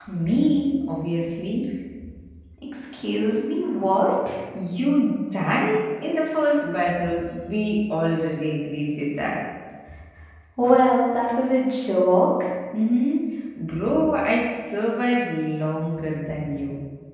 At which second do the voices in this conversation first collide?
none

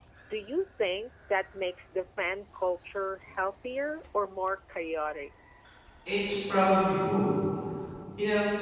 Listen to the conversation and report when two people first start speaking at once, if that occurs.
none

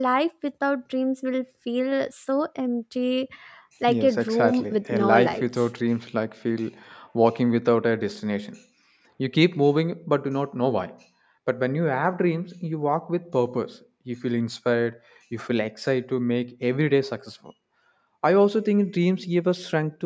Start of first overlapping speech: 3.9 s

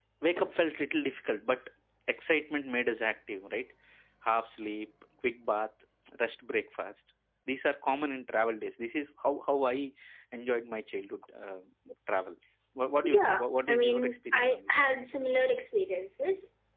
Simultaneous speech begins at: 13.0 s

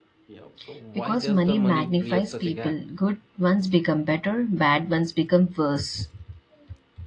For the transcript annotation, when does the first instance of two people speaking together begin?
1.0 s

